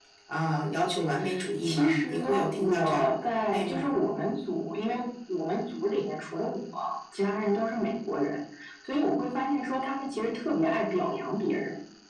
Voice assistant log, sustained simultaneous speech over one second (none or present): present